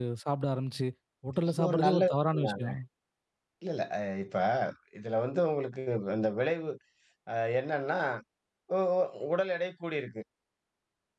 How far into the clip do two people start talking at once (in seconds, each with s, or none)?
1.4 s